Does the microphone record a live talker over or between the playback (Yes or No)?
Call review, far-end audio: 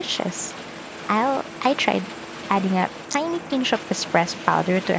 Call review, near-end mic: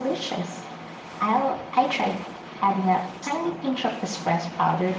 No